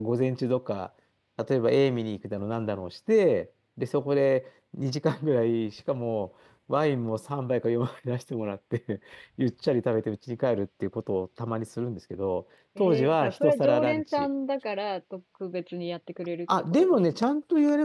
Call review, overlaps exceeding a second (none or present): present